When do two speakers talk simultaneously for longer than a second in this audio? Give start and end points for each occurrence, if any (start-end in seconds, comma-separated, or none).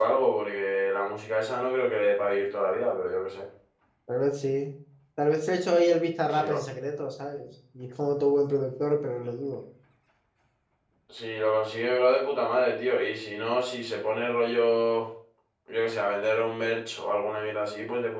none